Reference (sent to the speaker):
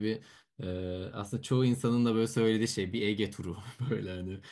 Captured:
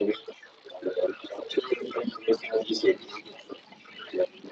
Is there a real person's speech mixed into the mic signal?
No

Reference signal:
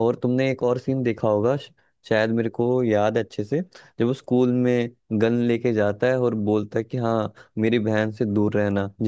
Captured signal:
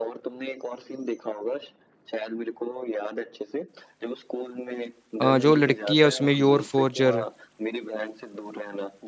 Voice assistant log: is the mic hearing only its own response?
No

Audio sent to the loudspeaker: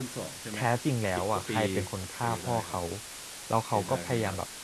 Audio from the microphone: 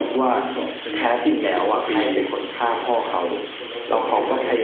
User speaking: Yes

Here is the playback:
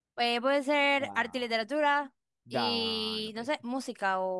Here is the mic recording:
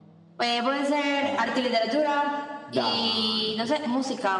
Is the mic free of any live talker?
Yes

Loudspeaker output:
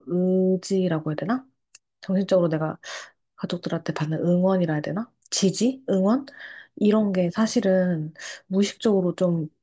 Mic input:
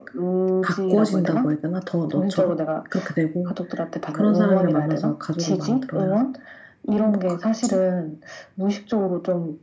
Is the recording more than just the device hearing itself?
Yes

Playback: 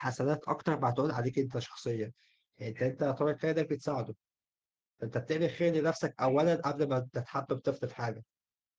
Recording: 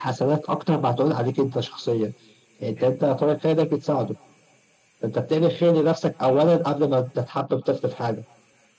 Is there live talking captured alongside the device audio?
No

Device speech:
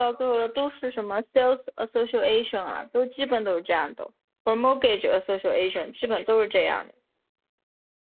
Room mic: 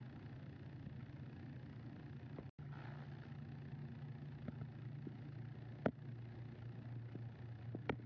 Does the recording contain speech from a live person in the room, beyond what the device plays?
No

